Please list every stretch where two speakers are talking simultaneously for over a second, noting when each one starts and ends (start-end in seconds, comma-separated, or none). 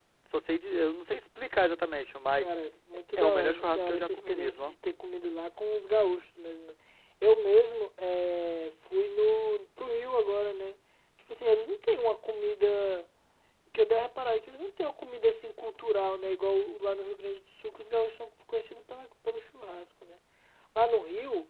3.2-4.8